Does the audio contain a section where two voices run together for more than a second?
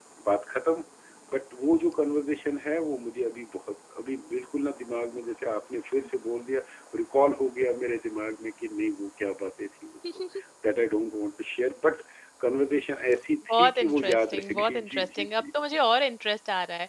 Yes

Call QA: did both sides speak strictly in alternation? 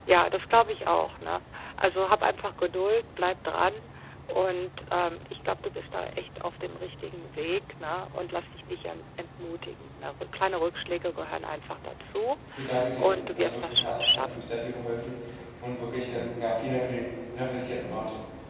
No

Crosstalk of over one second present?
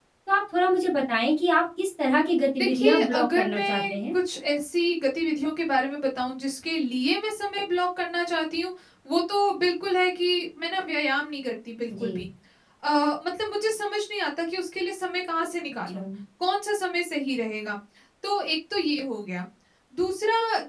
Yes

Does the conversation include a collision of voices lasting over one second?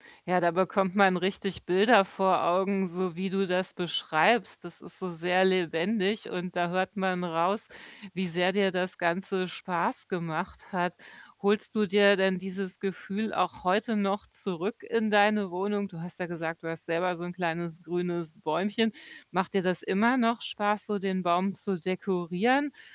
No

